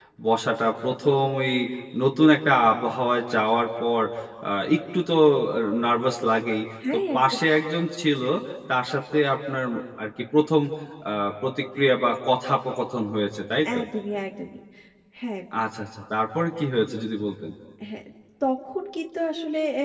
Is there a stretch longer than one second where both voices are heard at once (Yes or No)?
No